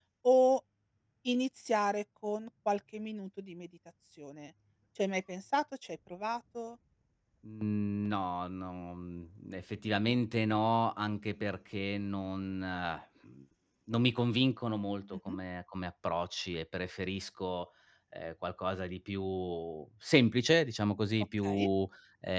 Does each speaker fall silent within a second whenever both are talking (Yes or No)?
Yes